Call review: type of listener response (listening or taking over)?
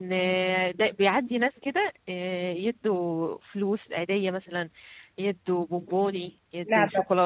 listening